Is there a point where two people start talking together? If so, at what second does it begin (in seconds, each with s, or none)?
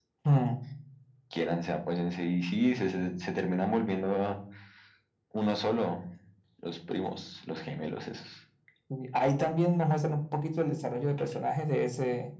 none